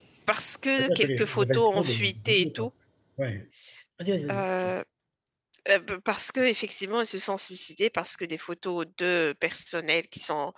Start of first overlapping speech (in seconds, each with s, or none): 0.7 s